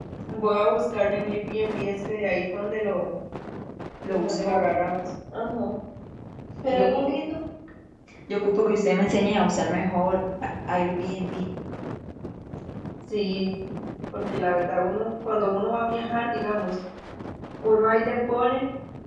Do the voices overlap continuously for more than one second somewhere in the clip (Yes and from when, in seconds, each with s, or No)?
No